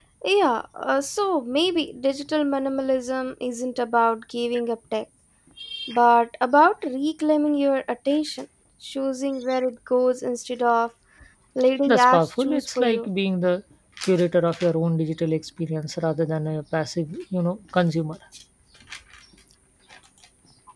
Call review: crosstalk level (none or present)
present